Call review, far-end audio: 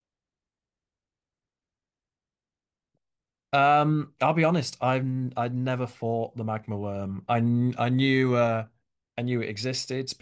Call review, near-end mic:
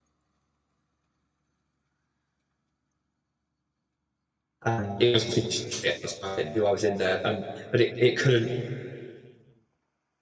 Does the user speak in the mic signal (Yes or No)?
Yes